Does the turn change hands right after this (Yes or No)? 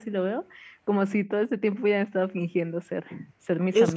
Yes